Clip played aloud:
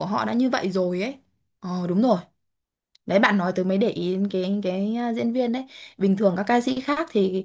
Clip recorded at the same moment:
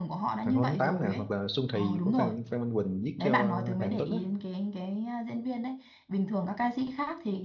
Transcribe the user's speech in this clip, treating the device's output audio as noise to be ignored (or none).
Hoàng hôn tháng 8 nè hoặc là Xuân Thì của Phan Phan Minh Quỳnh viết cho Hạ Anh Tuấn á